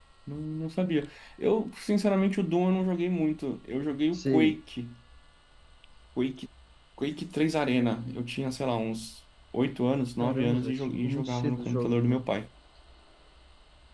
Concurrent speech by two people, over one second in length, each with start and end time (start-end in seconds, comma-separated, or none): 10.2-12.2